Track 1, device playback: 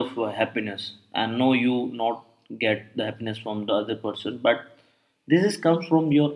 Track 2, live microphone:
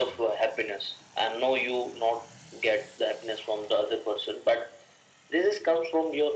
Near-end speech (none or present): none